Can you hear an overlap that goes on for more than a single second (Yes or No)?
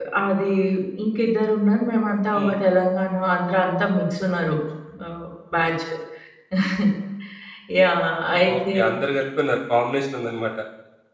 No